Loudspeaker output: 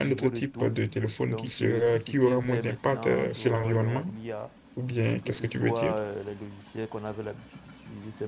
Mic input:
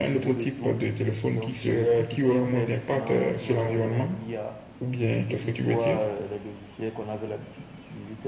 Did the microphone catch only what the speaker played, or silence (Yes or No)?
Yes